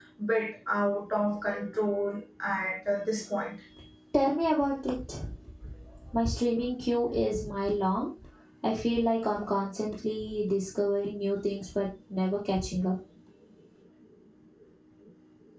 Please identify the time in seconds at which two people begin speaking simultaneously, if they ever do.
none

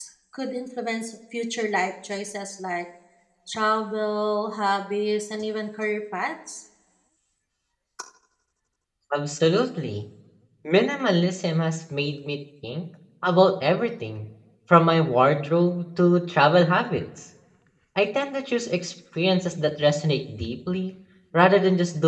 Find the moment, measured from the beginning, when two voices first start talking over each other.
none

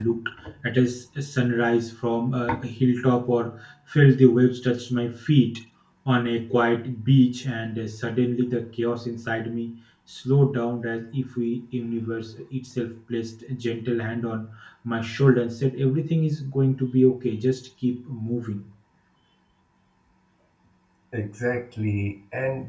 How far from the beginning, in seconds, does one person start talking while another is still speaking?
none

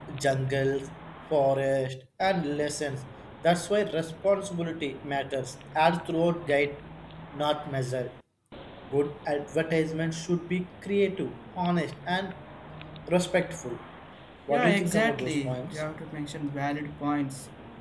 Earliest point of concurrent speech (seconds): 14.5 s

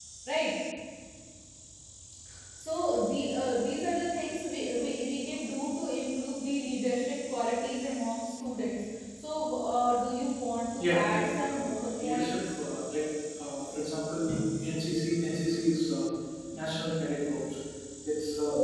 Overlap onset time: 10.8 s

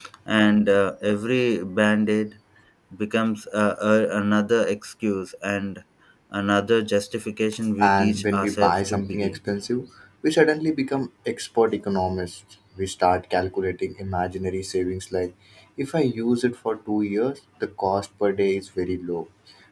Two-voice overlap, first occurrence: 7.8 s

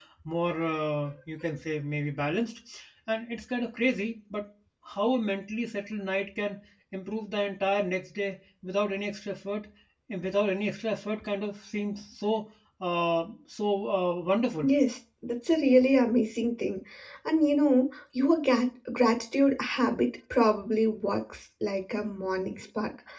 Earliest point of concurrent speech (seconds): none

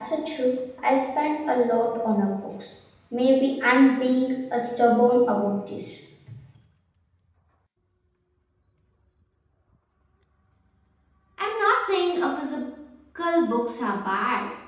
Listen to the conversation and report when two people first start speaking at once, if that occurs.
none

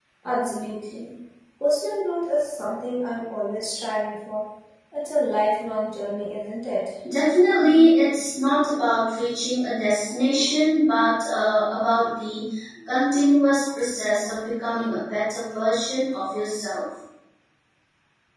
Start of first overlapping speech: none

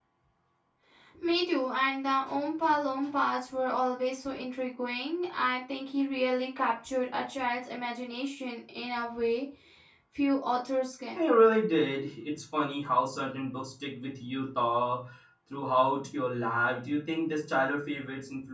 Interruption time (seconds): none

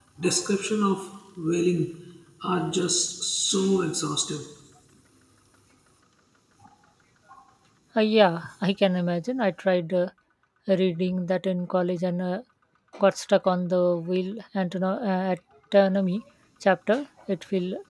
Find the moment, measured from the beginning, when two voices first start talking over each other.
none

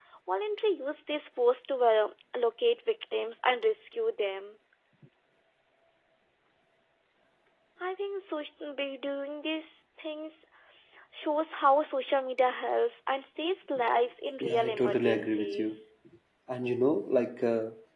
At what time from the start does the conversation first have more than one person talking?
14.4 s

